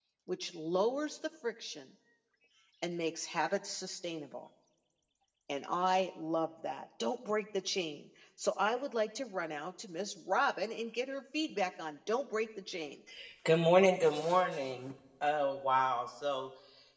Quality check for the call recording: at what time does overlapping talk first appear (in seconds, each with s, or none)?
none